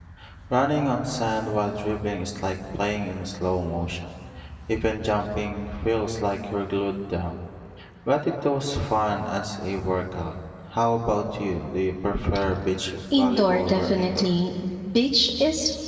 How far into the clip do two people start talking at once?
13.1 s

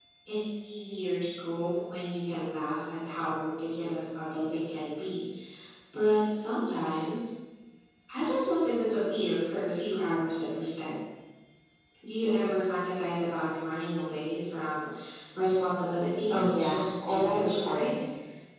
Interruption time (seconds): 16.3 s

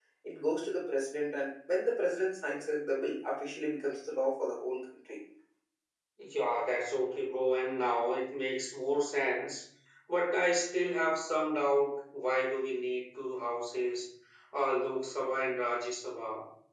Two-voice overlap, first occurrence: none

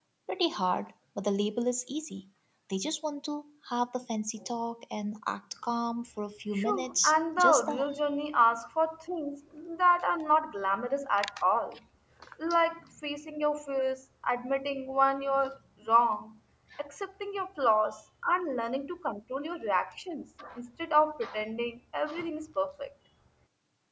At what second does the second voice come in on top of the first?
6.5 s

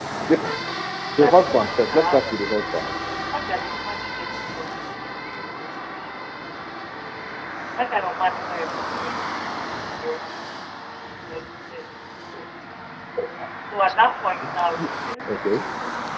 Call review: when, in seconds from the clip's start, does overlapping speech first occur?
1.2 s

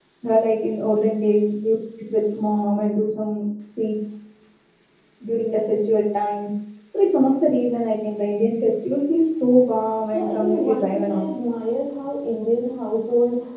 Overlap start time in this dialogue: 10.1 s

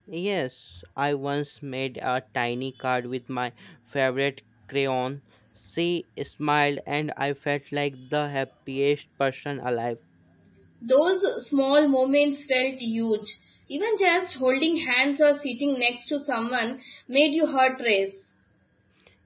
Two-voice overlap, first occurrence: none

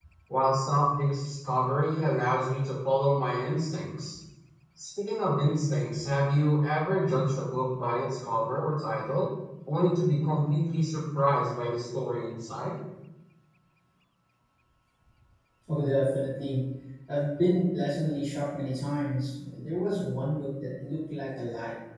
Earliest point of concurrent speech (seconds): none

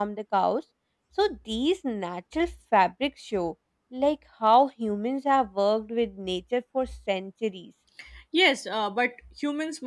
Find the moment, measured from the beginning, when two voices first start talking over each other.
none

